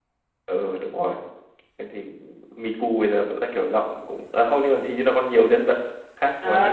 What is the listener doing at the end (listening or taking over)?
taking over